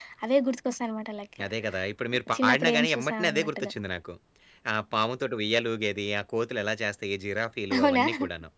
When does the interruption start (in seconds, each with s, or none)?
2.4 s